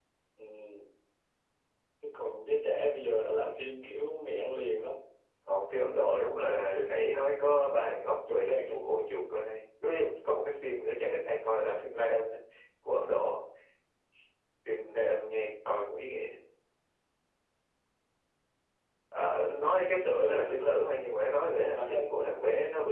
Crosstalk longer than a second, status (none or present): present